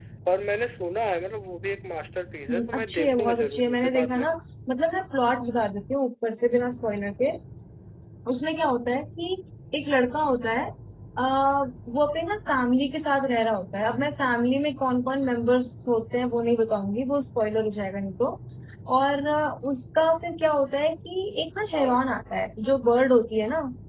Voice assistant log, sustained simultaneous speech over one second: present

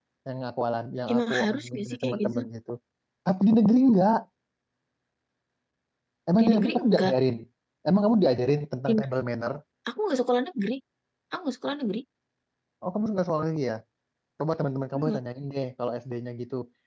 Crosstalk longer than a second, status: present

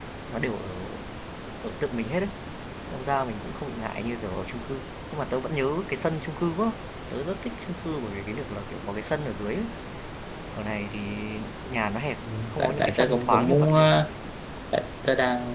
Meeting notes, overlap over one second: present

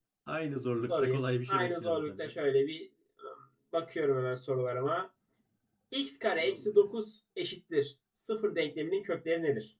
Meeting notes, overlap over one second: present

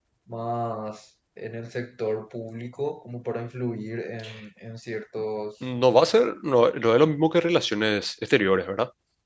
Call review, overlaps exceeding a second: none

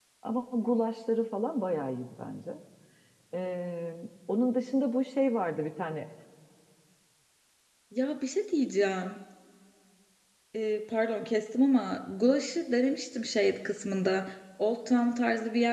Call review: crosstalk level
none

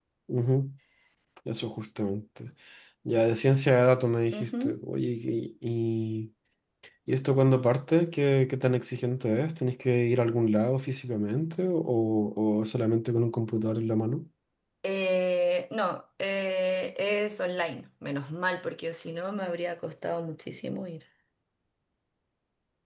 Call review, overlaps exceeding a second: none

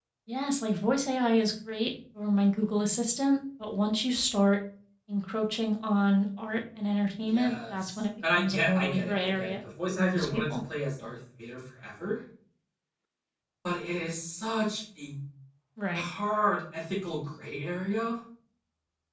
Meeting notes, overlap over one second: present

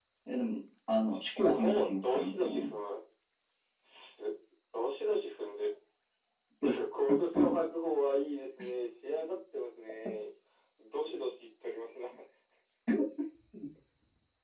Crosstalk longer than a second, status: present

